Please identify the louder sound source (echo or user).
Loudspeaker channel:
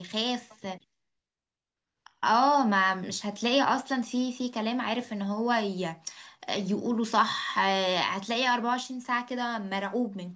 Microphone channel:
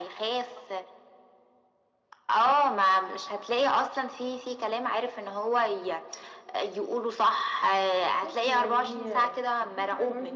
echo